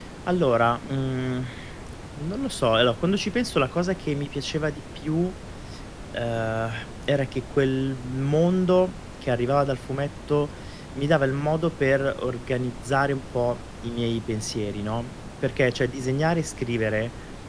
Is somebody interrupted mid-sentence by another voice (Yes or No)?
No